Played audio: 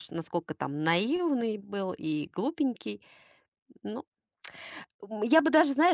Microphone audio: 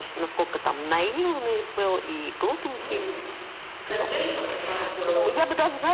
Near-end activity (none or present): present